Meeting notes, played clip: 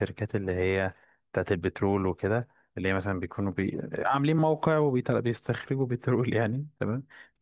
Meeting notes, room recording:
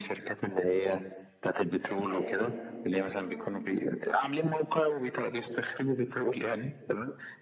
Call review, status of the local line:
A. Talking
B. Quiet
A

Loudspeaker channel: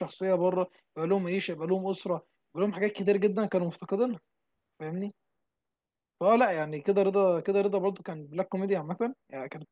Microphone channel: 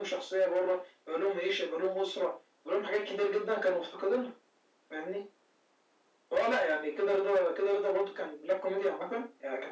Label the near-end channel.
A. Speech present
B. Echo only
B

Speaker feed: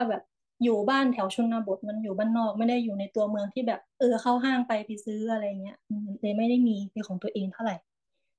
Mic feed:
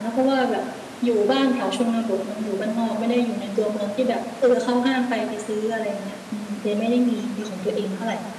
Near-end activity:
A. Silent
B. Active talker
A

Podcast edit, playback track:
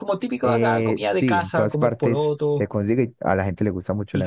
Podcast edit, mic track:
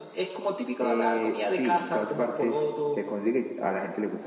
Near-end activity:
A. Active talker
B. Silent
B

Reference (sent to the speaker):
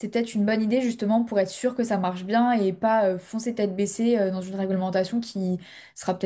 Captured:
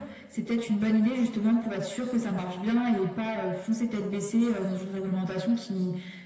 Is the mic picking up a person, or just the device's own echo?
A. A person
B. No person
B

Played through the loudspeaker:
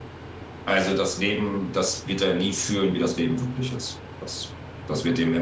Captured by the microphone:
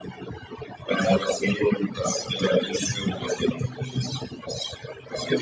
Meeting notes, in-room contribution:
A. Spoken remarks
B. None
B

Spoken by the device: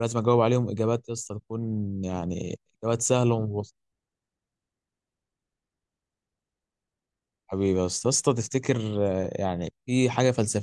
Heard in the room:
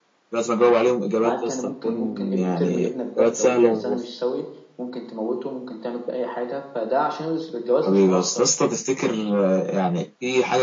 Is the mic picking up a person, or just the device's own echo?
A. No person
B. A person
B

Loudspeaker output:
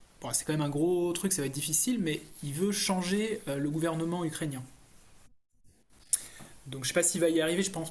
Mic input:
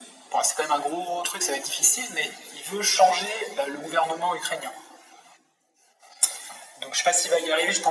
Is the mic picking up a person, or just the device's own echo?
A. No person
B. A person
A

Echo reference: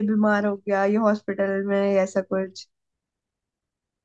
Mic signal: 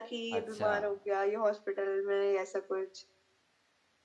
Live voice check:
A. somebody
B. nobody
A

